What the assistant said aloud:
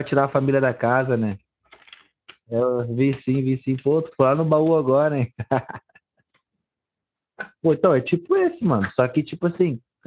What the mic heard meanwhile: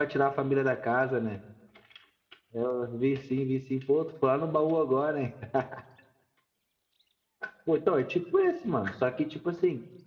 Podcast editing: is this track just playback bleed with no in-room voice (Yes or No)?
Yes